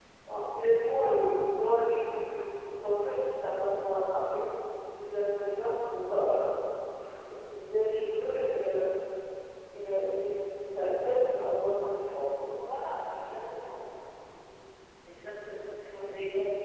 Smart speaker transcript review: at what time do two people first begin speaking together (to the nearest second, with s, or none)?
none